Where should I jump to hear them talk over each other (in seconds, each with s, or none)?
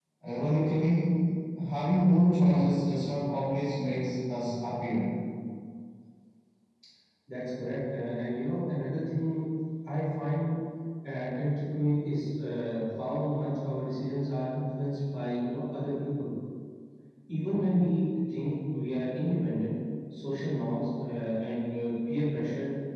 none